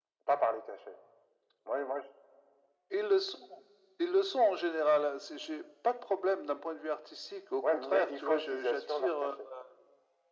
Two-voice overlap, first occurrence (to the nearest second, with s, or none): 8 s